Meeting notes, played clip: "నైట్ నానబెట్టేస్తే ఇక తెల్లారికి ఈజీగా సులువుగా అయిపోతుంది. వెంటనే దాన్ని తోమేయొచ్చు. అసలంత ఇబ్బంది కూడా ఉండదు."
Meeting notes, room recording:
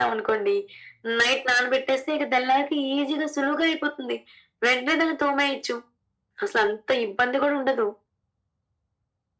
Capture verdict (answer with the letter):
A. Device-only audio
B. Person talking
A